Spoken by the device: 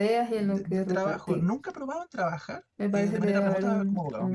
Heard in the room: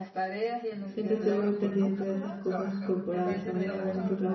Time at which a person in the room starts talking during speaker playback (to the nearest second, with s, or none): 1 s